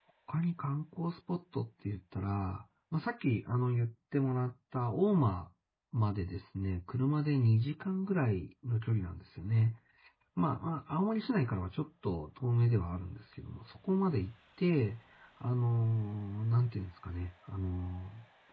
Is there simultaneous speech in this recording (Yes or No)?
No